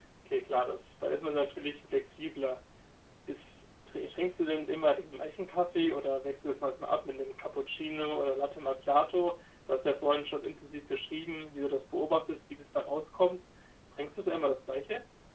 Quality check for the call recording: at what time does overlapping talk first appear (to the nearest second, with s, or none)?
none